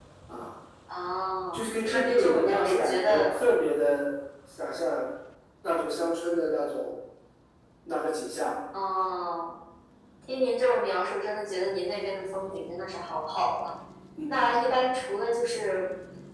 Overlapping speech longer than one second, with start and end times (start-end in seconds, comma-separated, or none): 1.5-3.3